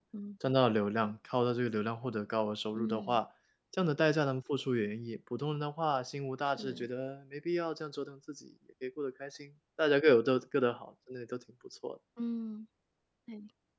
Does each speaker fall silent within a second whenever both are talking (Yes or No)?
Yes